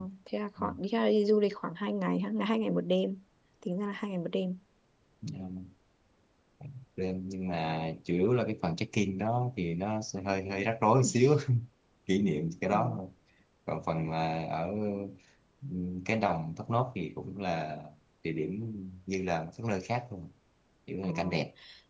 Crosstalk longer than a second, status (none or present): none